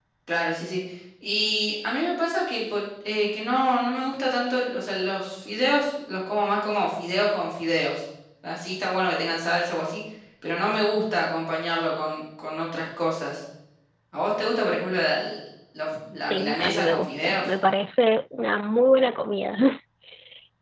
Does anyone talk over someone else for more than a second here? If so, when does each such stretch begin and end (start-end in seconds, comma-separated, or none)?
16.2-17.4